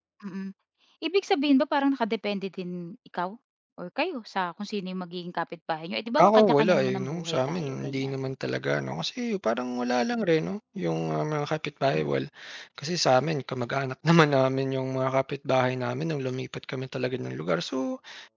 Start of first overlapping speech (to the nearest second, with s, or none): 6 s